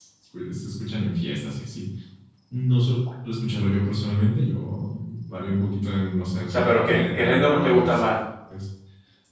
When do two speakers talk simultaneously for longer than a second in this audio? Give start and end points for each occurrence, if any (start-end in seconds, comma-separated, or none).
6.5-8.0